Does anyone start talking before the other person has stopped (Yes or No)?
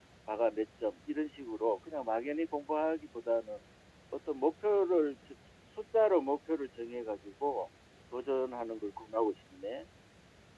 No